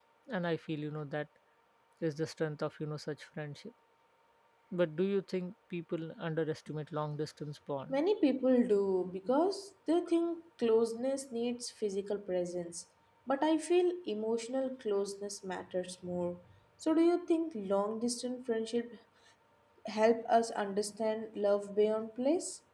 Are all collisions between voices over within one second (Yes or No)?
Yes